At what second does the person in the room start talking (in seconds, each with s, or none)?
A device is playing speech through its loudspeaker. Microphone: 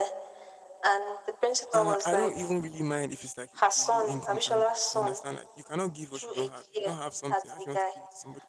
1.7 s